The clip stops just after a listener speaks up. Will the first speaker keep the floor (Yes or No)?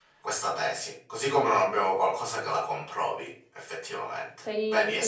No